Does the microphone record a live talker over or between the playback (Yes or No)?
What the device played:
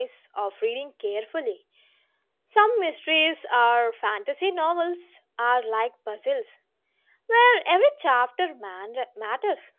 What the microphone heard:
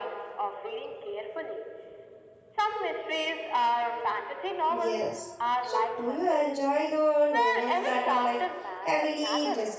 Yes